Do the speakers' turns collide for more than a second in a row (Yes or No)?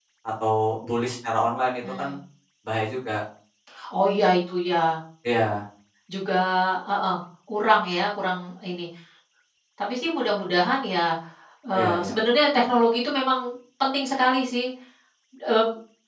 No